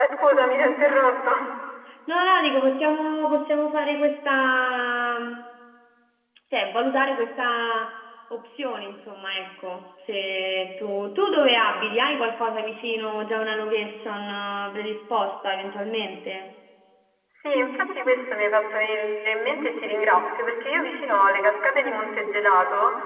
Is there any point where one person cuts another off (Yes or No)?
No